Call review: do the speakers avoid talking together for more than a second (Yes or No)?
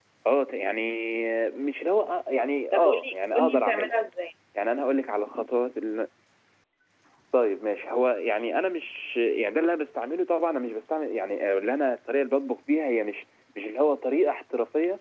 No